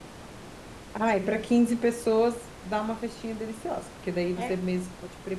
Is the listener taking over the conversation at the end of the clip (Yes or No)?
No